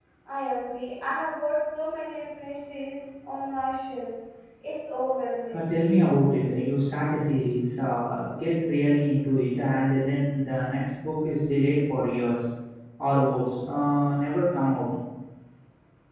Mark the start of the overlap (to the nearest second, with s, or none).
none